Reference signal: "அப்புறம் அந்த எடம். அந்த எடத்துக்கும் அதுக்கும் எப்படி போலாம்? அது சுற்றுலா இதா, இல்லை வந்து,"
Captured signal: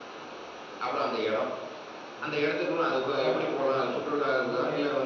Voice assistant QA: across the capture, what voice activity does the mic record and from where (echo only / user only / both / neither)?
both